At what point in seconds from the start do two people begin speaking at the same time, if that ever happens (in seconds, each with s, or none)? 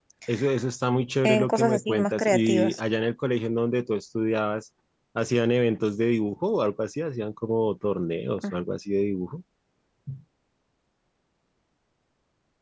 1.2 s